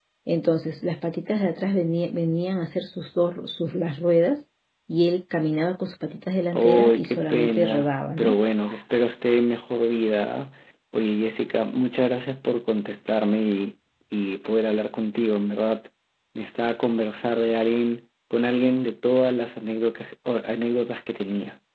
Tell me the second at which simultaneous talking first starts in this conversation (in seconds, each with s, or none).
6.5 s